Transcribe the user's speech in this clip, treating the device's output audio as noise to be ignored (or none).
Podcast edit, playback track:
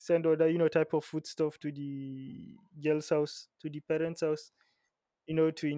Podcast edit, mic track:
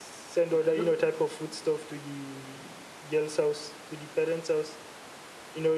I don't.